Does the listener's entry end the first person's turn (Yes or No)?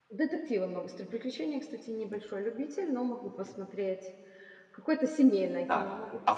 Yes